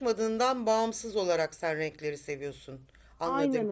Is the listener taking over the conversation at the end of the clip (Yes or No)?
Yes